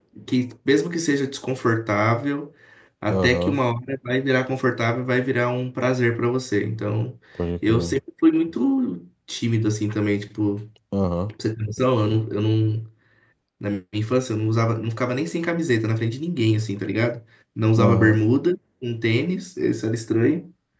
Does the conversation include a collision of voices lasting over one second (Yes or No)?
No